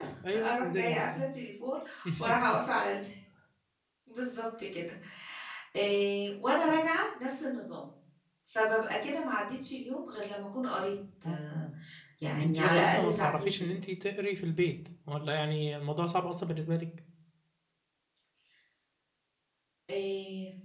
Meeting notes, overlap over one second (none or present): present